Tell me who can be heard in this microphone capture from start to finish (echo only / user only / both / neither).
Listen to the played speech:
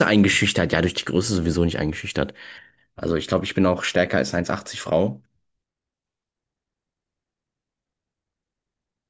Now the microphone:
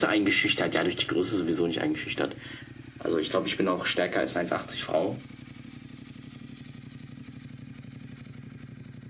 echo only